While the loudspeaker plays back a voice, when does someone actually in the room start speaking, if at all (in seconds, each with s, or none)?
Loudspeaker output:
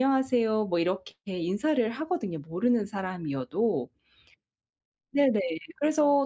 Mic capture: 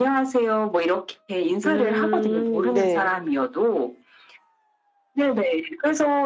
1.6 s